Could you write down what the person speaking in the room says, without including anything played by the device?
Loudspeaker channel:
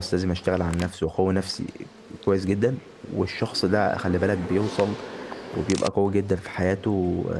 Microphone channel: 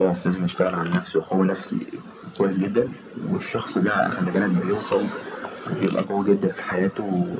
none

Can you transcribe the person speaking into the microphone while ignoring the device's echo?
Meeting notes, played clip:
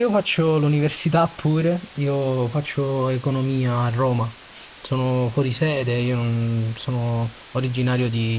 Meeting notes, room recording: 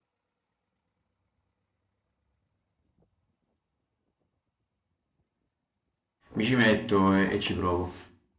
mi ci metto e, e ci provo,

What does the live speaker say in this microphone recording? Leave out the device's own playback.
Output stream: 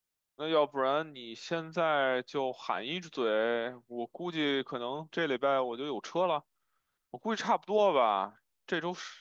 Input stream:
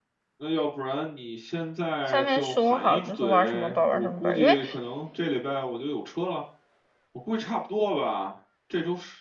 上面说好，就是玩什么本儿玩什么本儿因为

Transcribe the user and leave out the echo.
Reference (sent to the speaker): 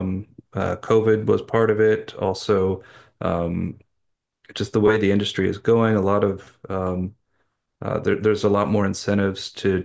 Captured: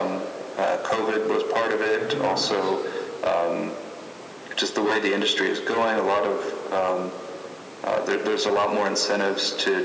I do not.

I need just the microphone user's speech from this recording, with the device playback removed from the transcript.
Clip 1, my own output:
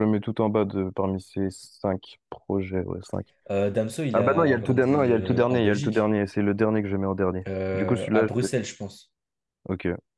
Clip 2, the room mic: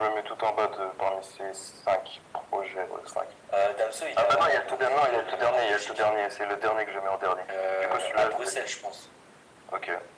none

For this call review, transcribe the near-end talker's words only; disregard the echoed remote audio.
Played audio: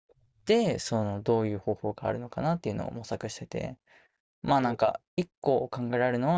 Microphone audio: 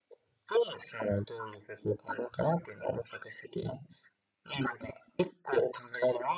none

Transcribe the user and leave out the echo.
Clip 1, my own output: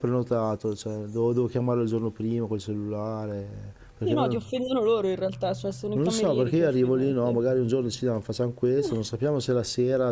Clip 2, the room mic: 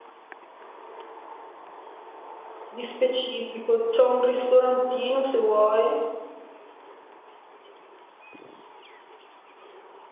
Di specifico, c'è un ristorantino se vuoi.

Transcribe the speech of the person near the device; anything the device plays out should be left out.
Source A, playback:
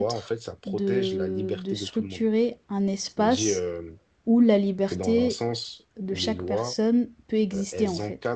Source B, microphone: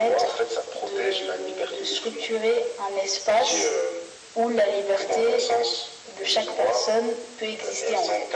none

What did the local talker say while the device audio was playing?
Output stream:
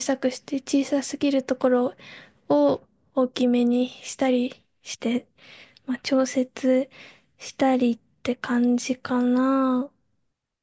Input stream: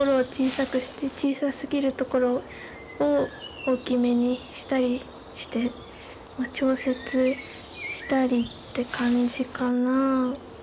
none

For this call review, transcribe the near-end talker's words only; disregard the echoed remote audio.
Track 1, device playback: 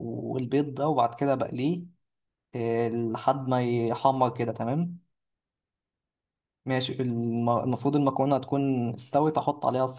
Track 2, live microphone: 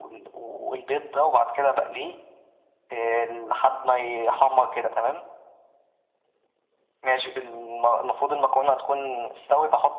none

